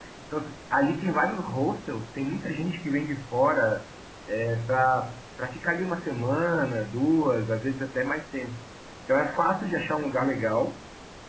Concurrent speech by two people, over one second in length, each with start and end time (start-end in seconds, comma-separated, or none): none